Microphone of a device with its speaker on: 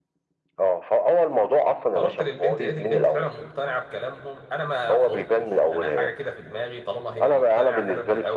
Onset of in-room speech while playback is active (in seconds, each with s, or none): 1.9 s